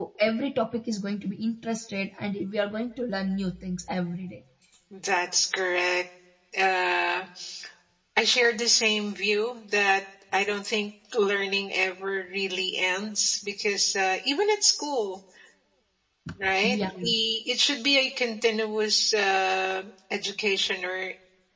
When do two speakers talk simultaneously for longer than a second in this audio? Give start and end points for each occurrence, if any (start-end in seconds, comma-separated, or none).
none